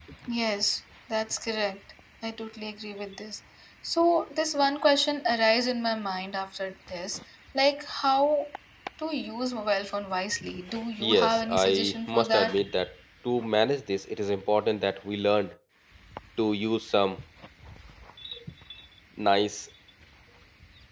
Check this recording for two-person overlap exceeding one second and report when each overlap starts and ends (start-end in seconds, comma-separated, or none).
11.0-12.6